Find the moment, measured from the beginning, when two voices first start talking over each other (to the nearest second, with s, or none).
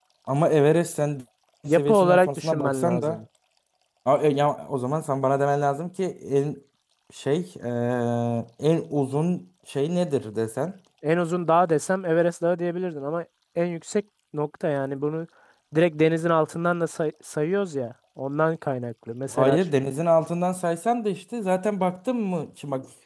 2 s